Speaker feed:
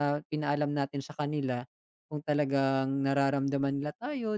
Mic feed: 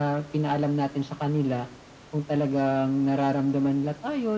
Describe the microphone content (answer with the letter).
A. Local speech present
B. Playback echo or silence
B